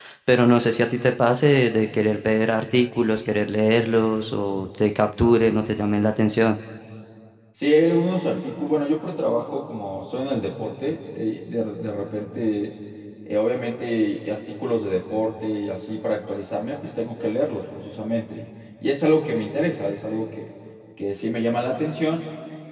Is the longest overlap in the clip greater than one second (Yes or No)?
No